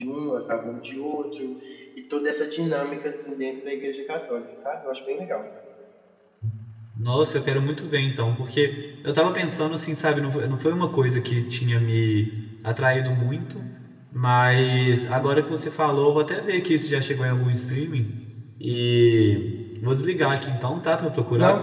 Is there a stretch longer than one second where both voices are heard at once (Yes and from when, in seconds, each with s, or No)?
No